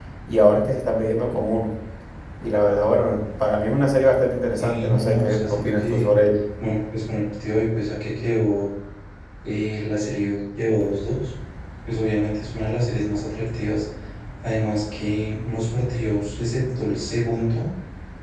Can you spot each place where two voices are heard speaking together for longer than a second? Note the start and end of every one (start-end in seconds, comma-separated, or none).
4.5-6.1